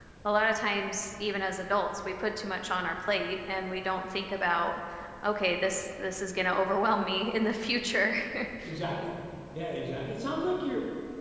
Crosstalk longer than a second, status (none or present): none